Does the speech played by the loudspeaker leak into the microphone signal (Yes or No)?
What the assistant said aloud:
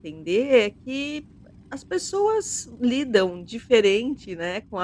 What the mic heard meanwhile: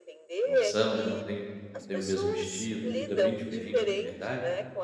Yes